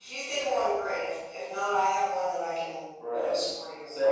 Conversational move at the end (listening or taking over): taking over